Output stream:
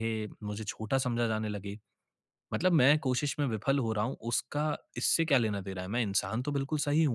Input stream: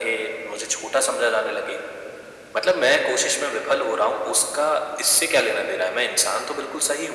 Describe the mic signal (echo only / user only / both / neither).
echo only